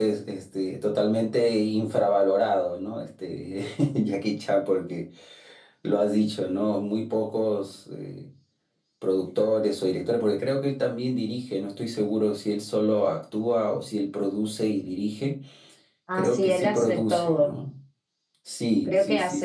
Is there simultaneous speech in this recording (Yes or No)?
Yes